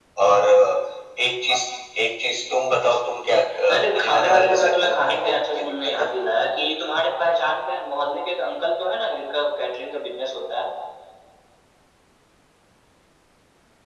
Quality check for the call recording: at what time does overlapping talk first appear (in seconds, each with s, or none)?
3.7 s